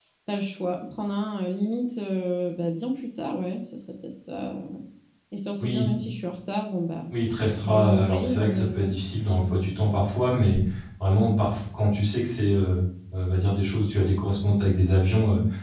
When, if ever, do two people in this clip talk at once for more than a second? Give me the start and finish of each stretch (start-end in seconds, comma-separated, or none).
7.6-9.0